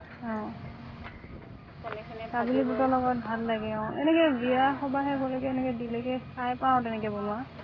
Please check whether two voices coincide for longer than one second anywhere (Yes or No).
Yes